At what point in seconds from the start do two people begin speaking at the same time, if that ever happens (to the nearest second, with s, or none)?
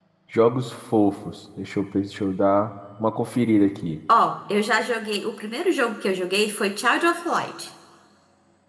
none